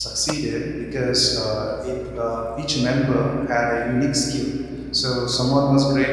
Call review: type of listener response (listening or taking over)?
listening